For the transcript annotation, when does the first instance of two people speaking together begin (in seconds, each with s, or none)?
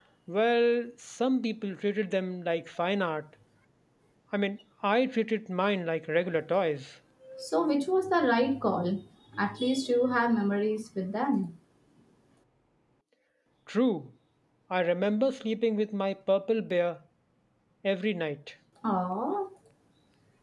none